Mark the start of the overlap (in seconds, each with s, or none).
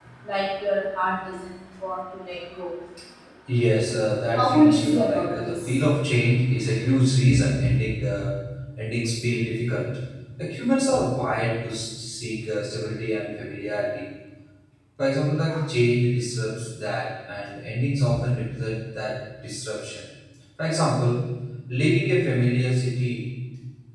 4.3 s